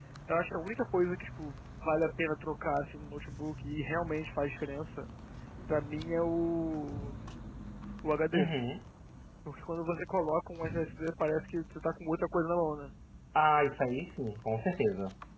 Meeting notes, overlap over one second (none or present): none